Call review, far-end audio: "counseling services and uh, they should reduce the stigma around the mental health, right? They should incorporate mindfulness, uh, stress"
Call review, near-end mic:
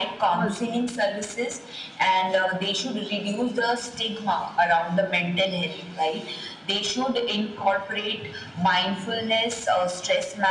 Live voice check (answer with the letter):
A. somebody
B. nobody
A